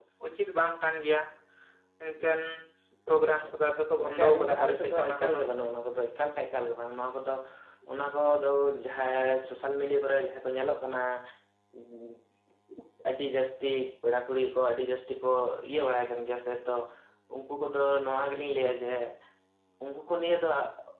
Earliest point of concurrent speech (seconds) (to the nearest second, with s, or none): 3 s